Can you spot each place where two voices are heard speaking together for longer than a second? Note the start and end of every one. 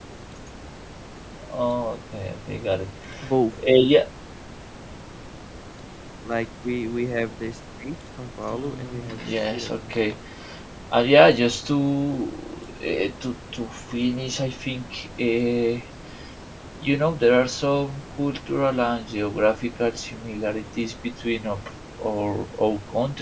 8.5-10.2

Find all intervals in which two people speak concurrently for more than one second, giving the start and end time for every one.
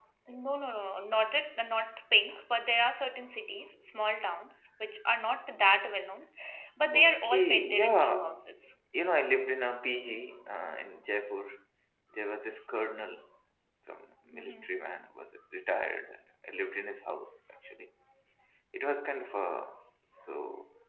6.9-8.4

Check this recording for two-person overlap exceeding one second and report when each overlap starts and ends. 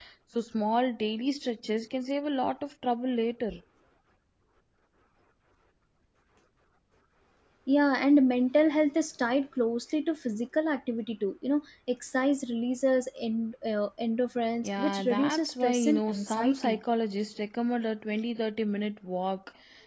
14.6-16.8

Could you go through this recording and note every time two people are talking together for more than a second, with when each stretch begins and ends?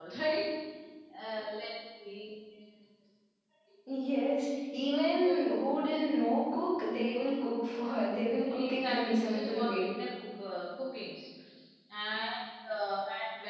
8.6-9.9

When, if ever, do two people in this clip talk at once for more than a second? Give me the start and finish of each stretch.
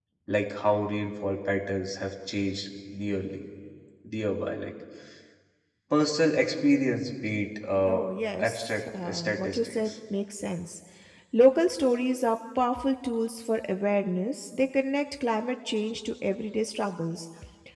8.4-9.8

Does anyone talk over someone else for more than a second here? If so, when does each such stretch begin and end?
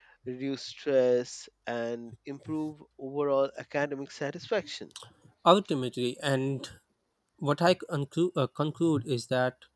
none

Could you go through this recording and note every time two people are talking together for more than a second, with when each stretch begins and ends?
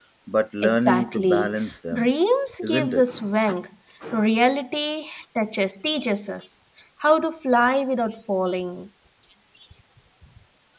0.6-2.1

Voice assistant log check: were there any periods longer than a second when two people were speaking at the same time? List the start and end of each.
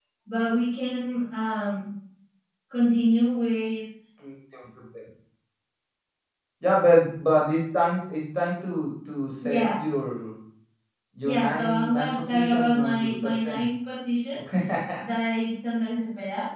11.2-13.7

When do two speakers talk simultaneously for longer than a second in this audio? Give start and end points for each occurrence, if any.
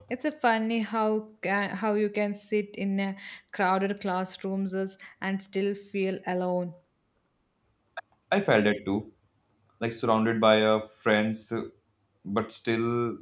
none

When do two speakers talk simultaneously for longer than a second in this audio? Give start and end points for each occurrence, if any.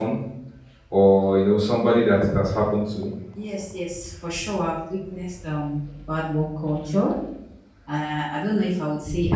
none

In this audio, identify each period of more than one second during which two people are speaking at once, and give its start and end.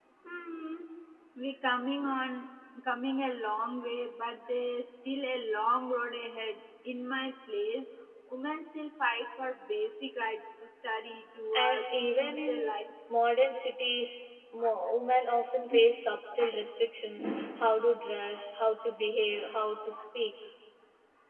11.5-12.7

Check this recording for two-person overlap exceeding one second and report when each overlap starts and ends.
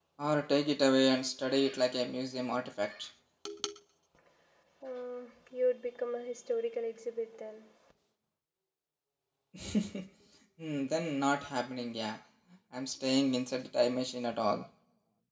none

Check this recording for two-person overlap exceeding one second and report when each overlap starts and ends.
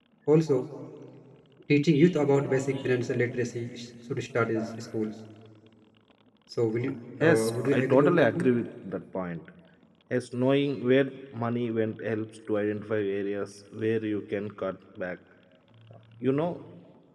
7.2-8.5

